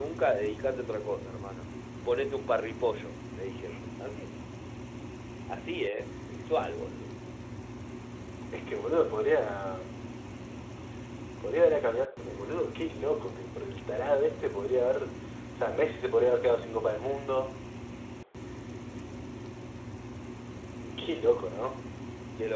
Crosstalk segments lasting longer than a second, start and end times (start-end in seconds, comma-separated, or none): none